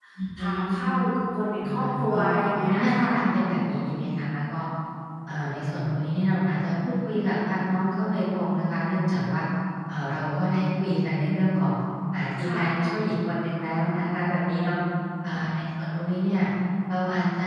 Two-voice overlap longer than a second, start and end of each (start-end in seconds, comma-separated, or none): 1.6-3.1